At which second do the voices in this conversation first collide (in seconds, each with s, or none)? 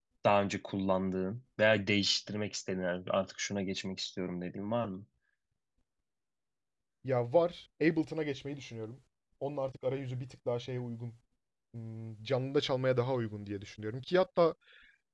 none